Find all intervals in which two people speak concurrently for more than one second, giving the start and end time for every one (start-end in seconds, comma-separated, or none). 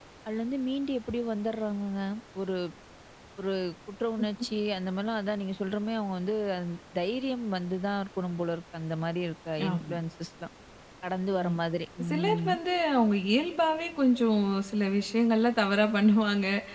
none